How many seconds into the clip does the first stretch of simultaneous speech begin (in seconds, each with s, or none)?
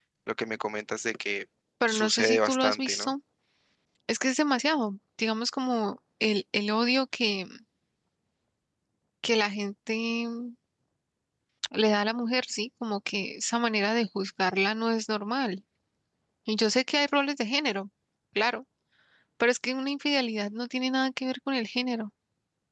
1.9 s